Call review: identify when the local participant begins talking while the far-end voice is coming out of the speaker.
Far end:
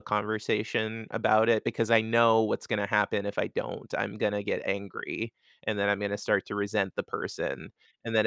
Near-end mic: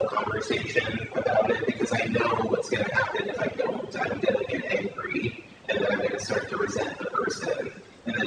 none

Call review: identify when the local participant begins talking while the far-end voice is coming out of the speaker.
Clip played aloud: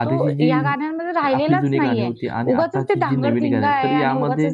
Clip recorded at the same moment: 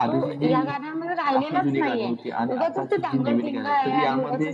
none

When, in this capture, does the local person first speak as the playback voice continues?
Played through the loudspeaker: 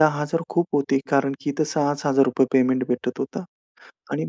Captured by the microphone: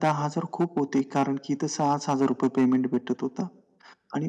none

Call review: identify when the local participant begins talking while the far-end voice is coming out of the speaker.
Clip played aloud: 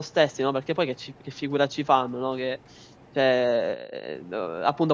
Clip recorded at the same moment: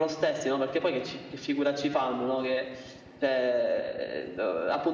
none

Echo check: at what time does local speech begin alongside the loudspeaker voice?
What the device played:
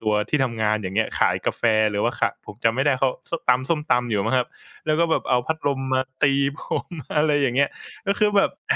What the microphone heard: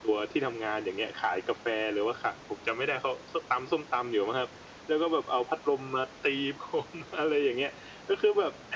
none

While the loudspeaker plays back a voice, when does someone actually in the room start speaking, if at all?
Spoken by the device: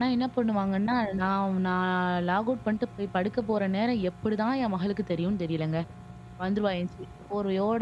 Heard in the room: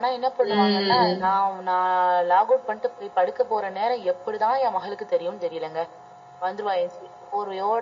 0.4 s

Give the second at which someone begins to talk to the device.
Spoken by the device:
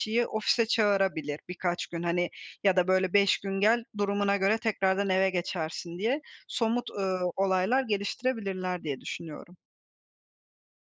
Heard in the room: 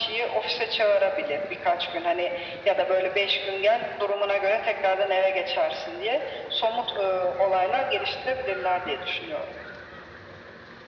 none

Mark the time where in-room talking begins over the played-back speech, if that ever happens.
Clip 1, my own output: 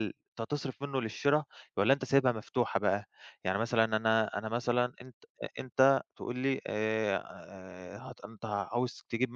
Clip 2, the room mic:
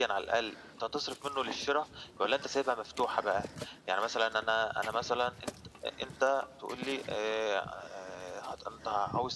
none

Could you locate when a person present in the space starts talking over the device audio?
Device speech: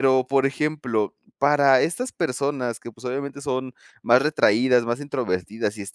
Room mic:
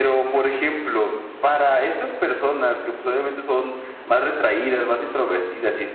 none

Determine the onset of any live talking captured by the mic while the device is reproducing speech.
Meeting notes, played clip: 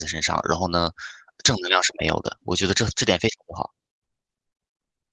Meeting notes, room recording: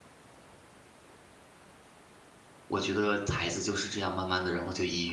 2.7 s

